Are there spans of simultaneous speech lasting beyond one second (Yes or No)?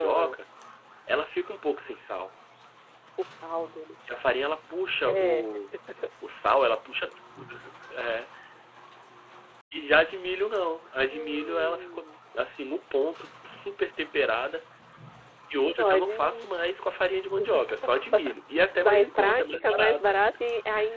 Yes